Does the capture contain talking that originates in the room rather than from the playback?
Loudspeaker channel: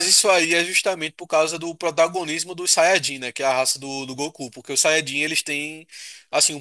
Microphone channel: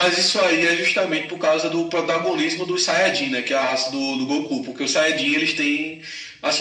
No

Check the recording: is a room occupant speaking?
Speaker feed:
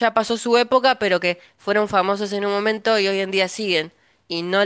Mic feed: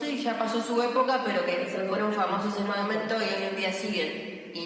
Yes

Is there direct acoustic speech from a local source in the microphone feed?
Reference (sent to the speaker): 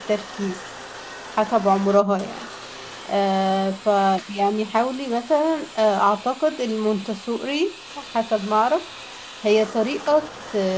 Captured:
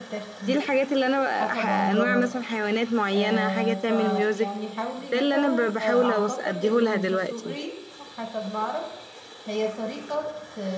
Yes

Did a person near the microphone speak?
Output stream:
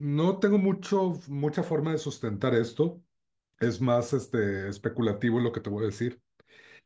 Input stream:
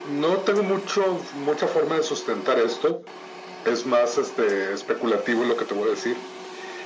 No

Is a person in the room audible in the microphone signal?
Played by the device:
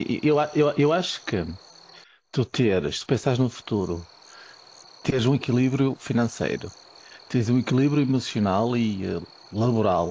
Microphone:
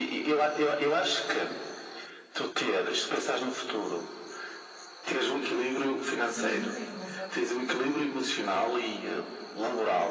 Yes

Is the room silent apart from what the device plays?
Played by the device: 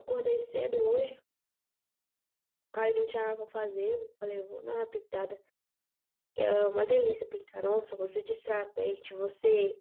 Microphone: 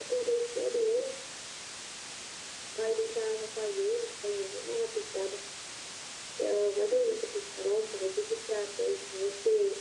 Yes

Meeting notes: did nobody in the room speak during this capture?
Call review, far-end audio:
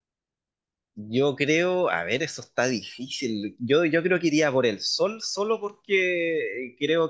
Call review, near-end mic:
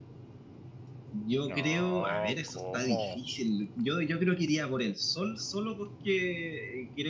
No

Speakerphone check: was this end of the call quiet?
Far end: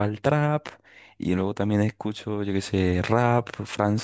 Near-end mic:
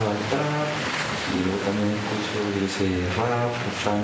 Yes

